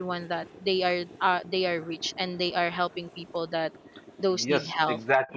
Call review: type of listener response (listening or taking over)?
taking over